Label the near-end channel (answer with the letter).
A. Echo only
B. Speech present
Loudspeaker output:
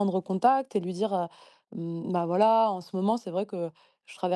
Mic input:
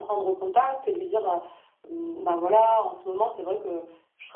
A